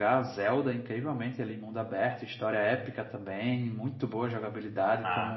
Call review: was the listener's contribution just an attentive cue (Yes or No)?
Yes